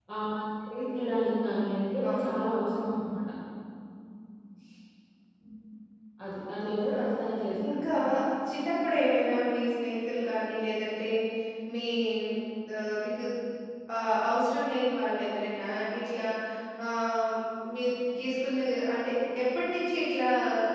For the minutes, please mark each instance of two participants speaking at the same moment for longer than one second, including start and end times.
none

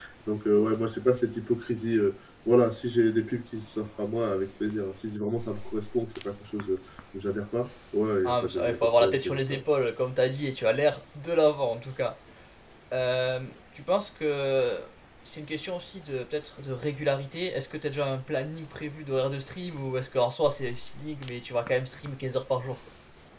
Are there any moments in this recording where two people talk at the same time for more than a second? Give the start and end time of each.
8.3-9.6

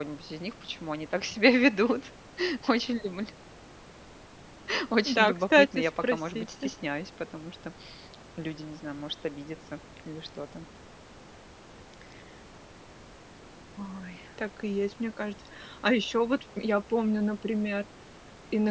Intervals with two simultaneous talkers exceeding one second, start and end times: 5.0-6.7

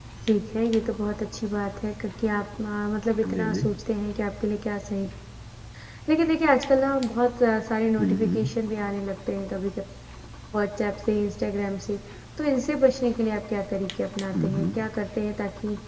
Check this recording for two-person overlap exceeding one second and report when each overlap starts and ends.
none

